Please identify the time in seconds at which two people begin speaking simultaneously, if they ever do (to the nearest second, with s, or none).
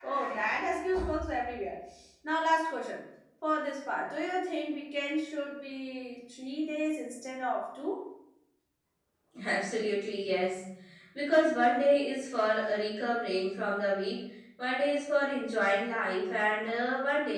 none